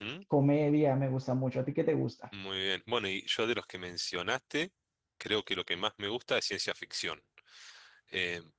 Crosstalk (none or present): none